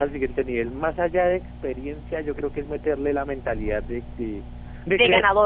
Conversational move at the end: listening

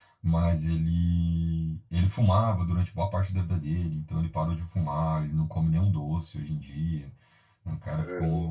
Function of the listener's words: listening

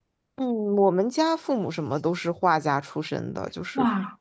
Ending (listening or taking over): listening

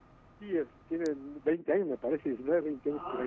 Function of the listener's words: taking over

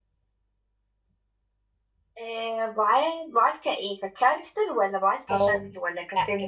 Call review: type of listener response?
taking over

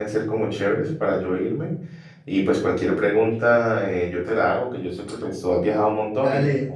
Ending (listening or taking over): taking over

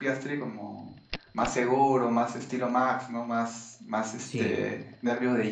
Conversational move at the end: listening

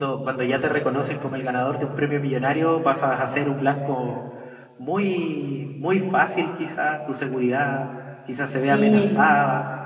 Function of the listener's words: listening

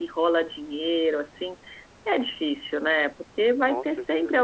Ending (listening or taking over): listening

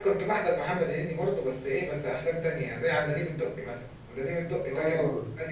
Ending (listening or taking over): listening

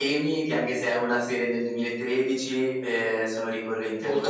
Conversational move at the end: taking over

